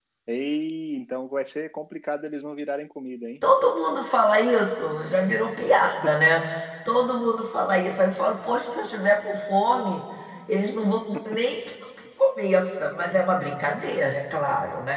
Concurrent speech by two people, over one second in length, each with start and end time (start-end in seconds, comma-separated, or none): none